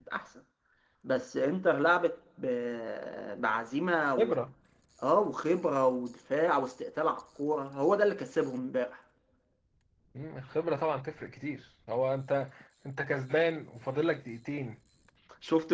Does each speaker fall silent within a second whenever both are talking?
Yes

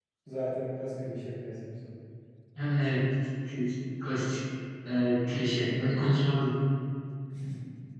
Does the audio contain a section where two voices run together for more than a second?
No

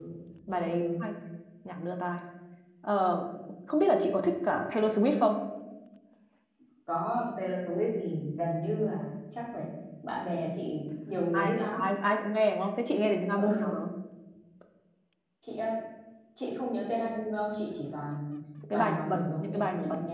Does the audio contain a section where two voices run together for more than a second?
Yes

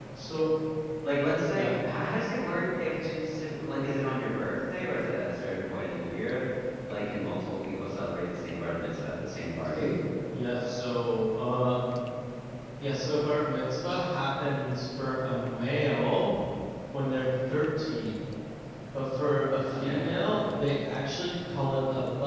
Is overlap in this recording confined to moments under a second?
Yes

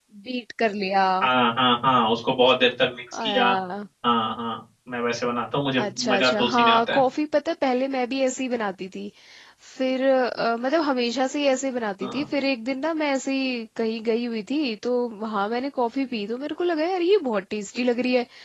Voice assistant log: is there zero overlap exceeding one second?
No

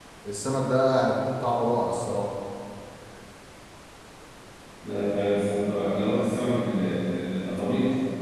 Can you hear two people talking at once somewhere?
No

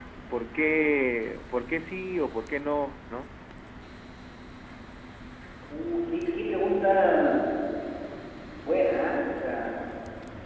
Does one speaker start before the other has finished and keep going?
No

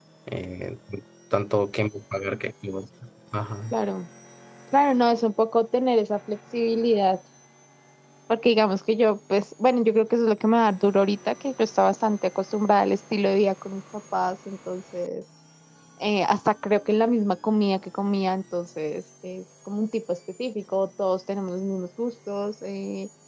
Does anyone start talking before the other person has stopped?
No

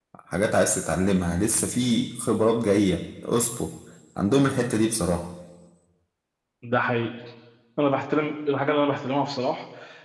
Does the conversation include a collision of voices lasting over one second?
No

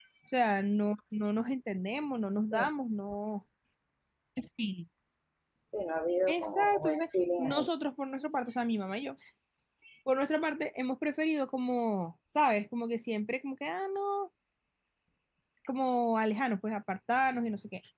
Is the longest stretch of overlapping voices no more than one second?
No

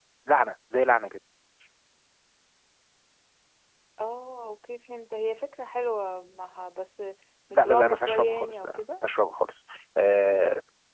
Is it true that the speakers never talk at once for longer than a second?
No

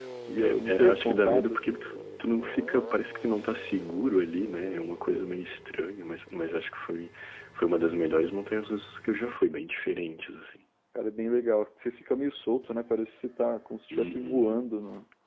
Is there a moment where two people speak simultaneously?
Yes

